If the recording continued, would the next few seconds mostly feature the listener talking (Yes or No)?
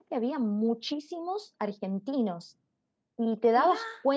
No